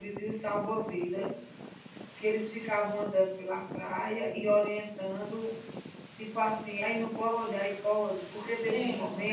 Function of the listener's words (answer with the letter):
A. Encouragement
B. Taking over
B